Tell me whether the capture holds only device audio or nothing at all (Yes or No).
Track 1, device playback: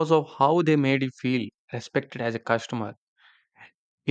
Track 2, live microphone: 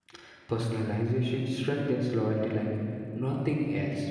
No